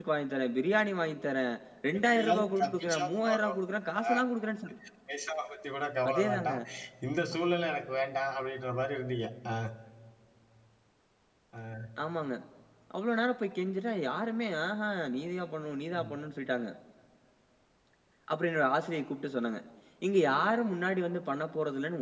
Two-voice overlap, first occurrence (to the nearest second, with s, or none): 2 s